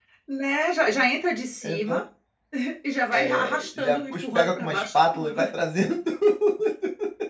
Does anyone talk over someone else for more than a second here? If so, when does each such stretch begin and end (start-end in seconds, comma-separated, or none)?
3.1-5.4